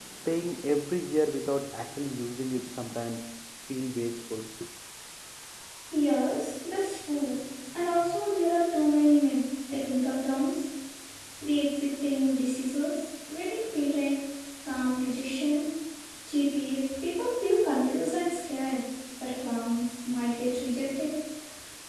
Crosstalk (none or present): none